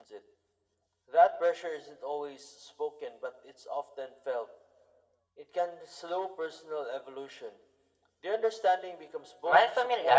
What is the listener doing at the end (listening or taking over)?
taking over